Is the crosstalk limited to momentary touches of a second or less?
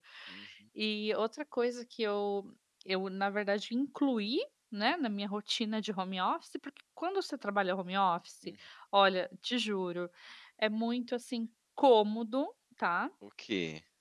Yes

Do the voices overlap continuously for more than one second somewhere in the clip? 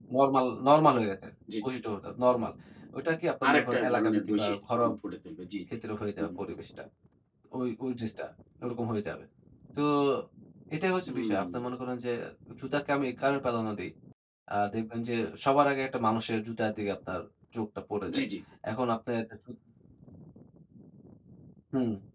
Yes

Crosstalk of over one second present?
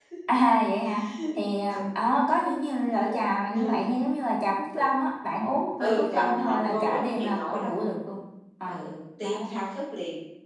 Yes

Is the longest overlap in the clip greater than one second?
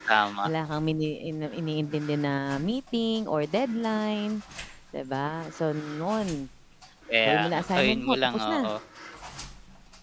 Yes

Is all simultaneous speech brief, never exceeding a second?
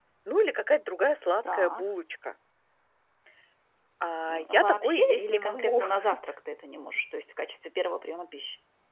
No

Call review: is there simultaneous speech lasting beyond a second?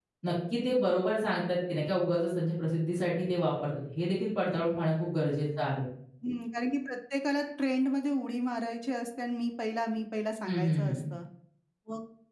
No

